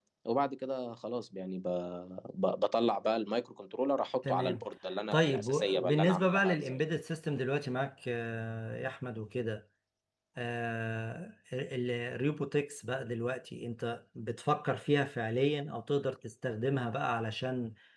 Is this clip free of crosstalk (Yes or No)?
No